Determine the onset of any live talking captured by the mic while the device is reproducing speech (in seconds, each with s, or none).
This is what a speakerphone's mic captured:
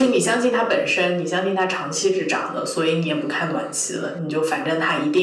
none